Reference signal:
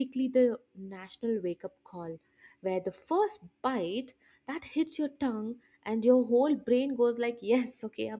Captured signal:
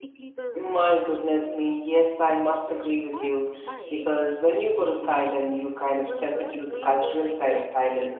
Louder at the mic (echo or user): user